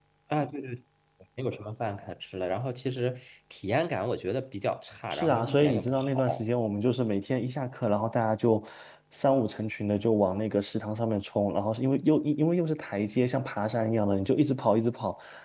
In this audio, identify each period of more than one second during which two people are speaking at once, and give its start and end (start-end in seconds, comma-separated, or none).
5.1-6.4